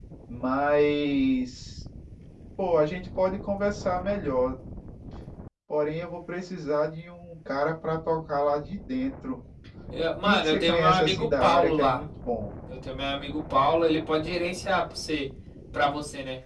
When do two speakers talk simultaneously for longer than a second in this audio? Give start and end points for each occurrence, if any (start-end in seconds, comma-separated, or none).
10.2-12.0